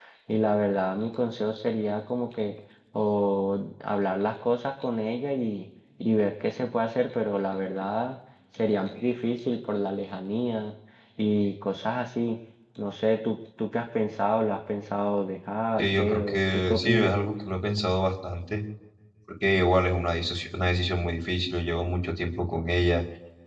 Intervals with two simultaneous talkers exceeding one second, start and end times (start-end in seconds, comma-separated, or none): 15.8-17.1